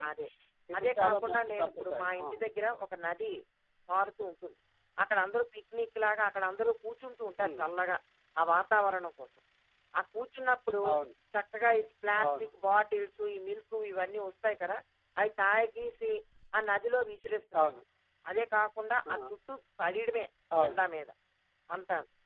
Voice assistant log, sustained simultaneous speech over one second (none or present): present